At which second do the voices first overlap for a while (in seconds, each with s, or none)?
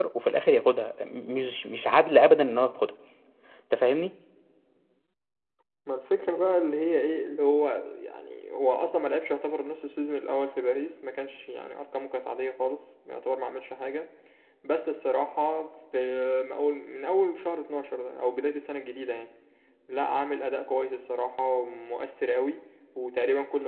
none